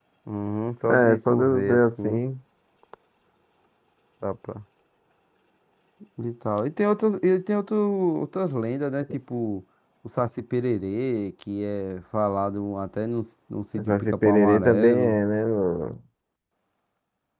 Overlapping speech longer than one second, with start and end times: 0.9-2.2, 13.8-15.2

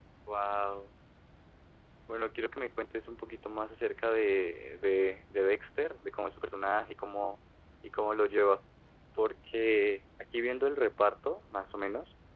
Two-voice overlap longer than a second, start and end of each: none

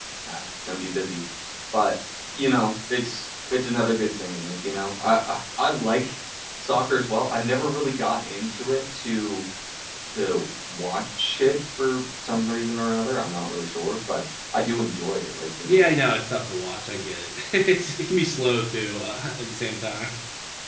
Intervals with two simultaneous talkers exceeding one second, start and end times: none

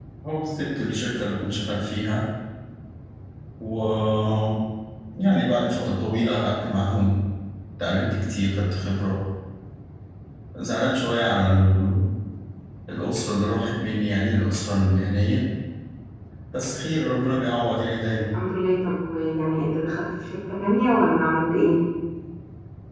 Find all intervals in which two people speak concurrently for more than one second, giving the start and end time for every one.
none

